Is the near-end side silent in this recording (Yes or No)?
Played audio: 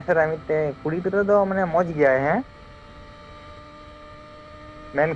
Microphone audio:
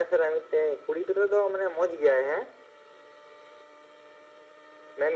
Yes